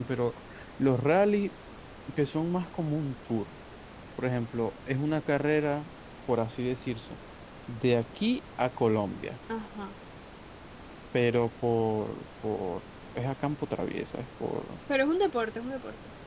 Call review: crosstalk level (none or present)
none